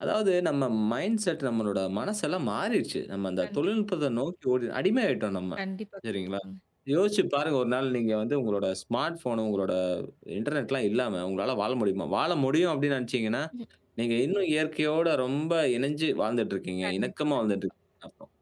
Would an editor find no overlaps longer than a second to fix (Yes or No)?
Yes